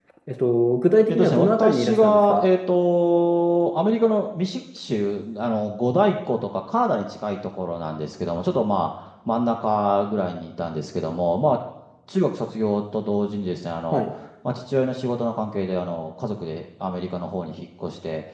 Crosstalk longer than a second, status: present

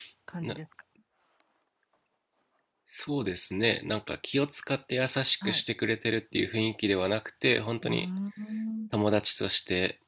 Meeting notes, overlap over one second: none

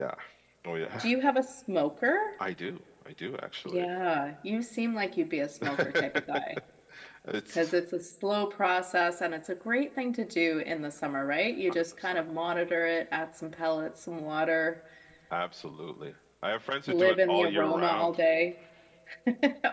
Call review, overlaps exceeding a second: present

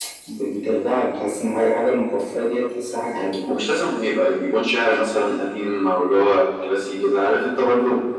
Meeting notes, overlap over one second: none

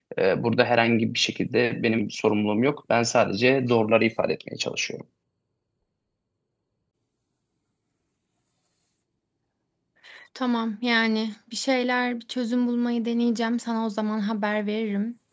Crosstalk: none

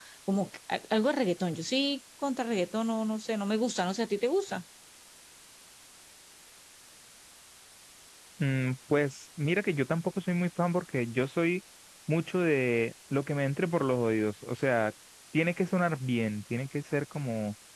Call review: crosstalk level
none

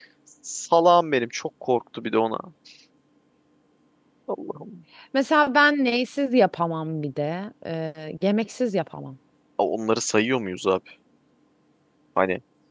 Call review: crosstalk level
none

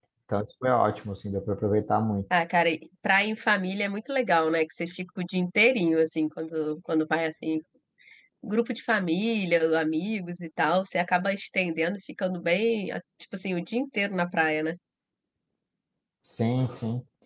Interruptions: none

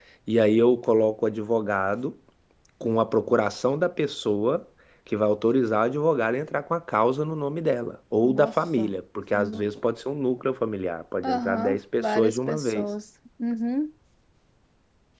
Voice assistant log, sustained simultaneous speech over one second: present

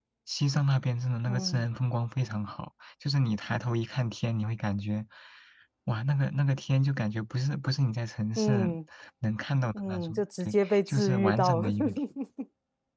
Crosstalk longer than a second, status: present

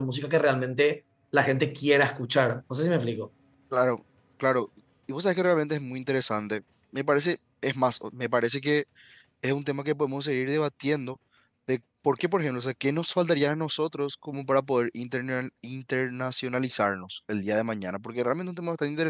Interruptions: none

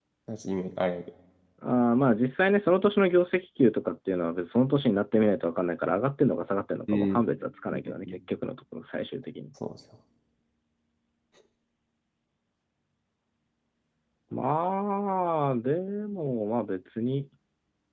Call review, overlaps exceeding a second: none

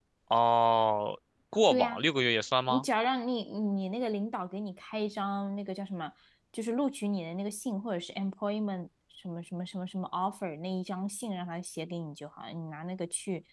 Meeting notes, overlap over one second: none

